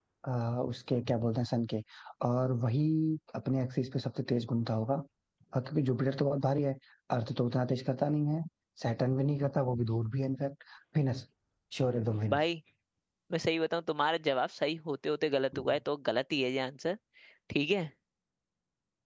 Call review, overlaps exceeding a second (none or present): none